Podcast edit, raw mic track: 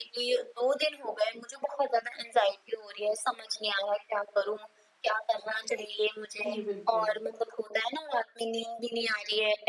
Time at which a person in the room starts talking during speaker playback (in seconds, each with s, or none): 6.4 s